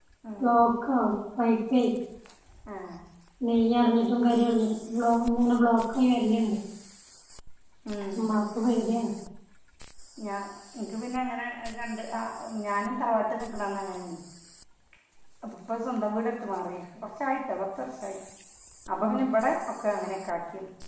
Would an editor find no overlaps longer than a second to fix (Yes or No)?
Yes